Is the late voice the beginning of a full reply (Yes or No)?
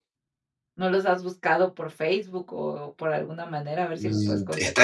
Yes